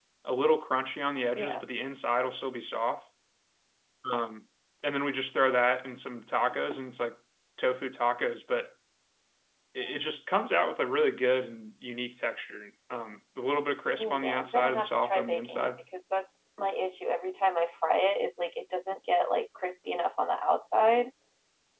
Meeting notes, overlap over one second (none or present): present